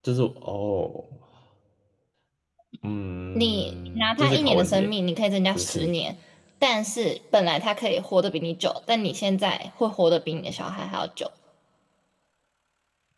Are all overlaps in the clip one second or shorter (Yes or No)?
No